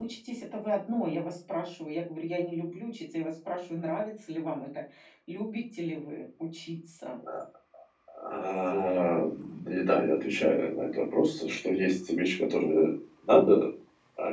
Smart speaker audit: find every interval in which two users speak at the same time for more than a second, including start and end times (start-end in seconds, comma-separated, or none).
none